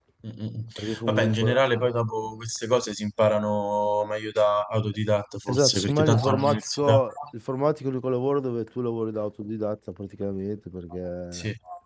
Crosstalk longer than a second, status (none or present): present